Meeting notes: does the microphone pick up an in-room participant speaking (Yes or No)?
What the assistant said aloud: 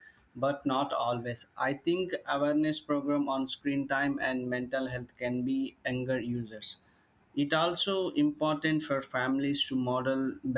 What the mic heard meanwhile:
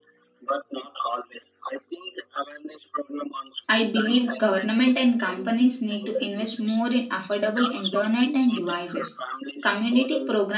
Yes